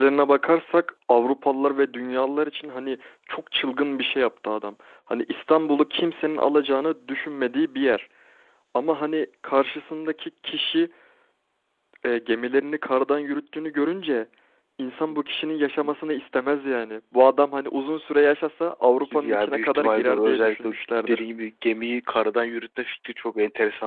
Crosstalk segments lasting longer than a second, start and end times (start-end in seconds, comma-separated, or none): 19.1-20.7